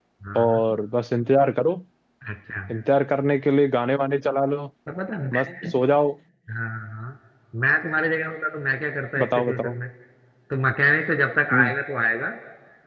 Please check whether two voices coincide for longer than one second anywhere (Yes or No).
No